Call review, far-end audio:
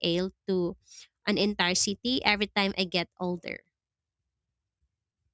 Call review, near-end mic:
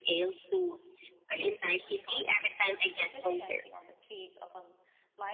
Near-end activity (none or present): present